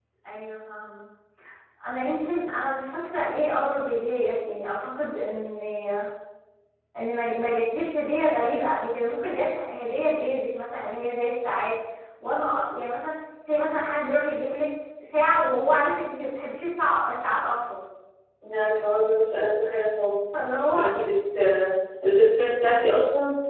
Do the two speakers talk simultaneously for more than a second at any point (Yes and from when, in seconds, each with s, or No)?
No